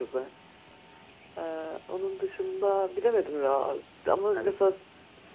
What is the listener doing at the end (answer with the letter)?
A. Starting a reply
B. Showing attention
B